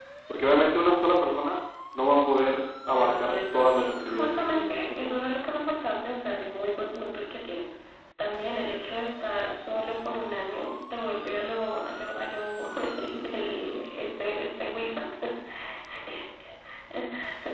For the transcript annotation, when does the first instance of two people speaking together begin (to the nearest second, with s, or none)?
3 s